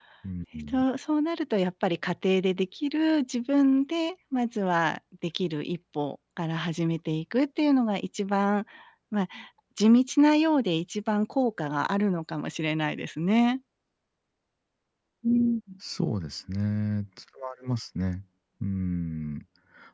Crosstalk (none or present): none